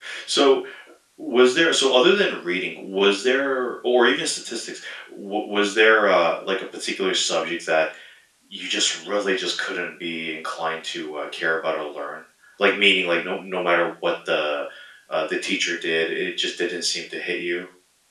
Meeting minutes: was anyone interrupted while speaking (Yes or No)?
No